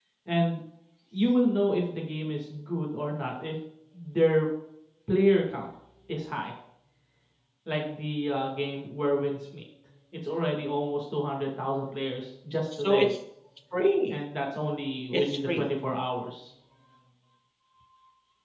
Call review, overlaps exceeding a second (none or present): none